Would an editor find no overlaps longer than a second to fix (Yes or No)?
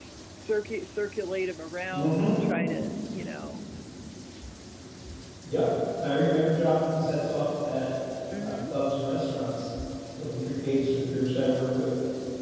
Yes